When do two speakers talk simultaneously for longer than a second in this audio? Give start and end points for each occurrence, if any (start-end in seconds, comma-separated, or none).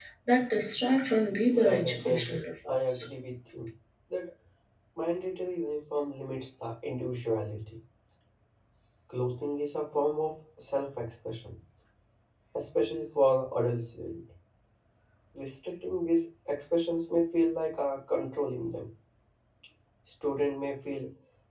1.5-3.0